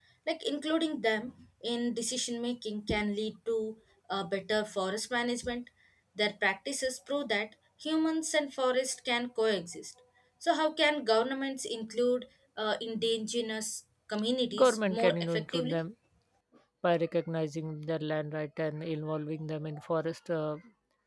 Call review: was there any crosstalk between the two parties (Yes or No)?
Yes